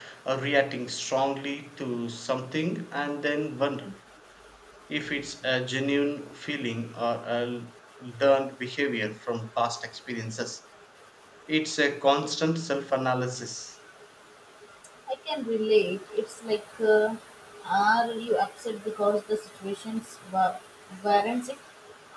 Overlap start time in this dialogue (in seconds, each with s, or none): none